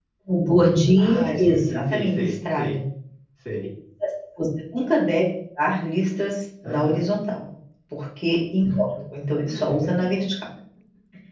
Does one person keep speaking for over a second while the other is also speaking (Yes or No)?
Yes